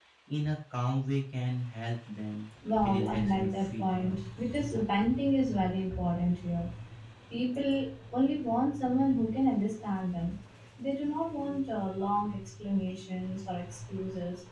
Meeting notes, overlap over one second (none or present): present